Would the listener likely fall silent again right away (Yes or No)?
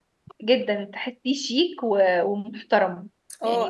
Yes